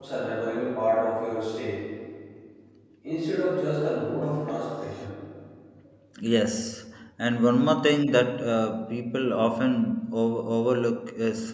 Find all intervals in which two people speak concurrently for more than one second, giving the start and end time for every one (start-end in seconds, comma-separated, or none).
none